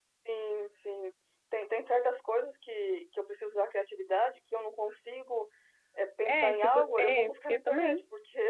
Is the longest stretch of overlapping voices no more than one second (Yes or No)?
No